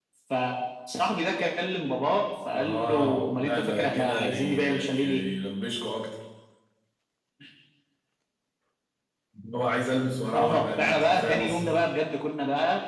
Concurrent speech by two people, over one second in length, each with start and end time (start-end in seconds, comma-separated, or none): 2.5-5.2, 10.3-11.7